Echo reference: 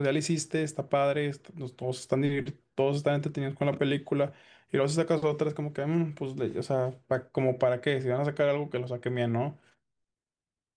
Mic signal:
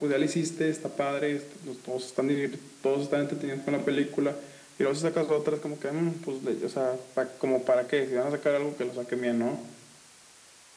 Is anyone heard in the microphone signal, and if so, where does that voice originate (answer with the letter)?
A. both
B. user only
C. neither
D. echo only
D